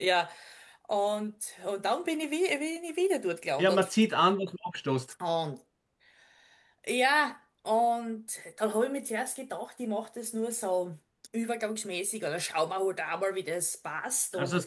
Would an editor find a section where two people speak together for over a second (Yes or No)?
No